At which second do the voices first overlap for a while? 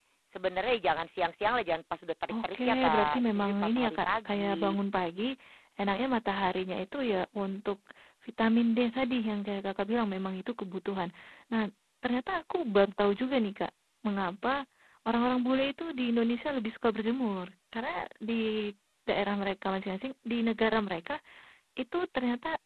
2 s

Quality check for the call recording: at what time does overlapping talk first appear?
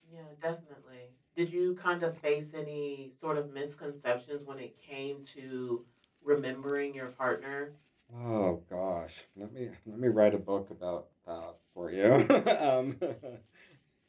none

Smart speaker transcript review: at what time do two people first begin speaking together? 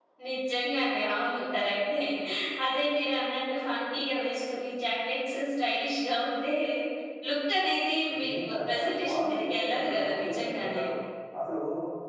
8 s

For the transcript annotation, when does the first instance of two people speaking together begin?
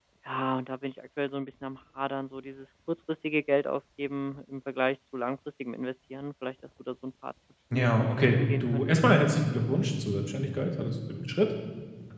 8 s

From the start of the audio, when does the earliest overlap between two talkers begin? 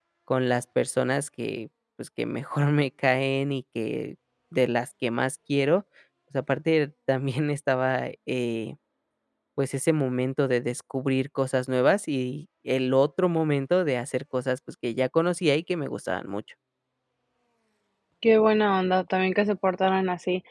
none

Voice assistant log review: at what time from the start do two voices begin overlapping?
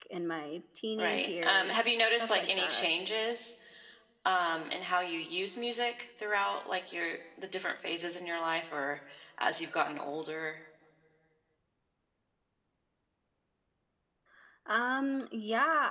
1 s

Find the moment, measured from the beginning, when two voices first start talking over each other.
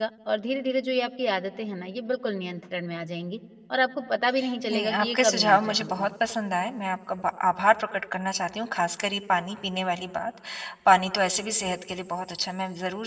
5 s

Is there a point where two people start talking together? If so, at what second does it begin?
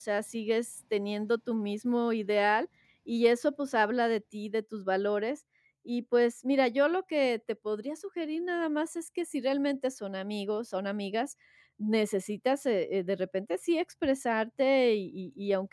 none

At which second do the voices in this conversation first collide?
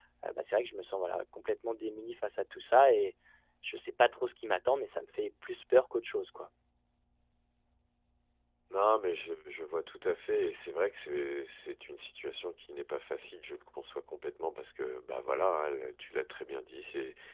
none

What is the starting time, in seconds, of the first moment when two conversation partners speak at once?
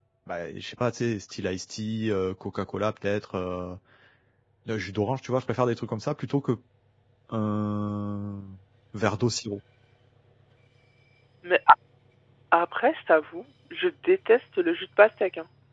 none

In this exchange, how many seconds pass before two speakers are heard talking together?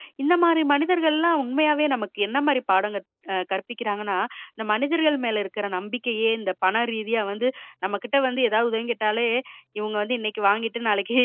none

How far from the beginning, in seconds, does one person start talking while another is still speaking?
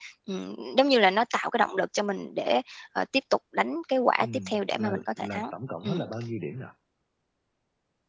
4 s

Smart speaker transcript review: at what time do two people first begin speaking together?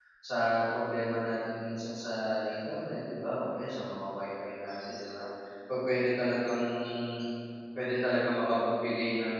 none

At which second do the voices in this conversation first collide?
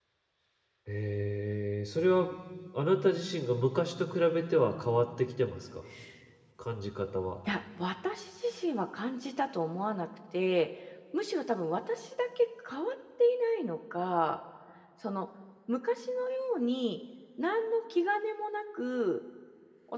none

